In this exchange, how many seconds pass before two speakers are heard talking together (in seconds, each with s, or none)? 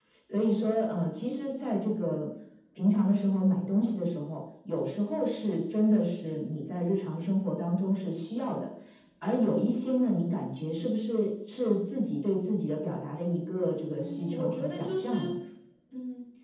14.0 s